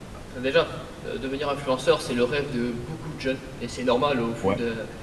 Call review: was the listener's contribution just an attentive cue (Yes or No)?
Yes